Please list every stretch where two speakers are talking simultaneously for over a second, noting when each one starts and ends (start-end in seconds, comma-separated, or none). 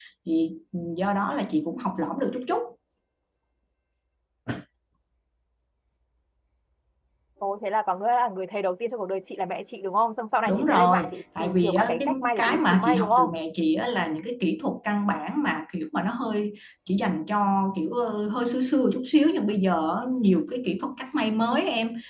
10.5-13.3